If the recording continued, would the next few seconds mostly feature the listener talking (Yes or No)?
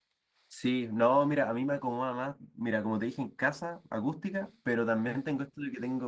No